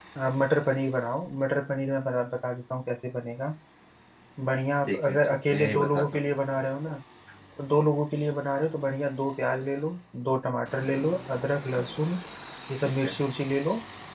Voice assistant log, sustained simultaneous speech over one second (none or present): present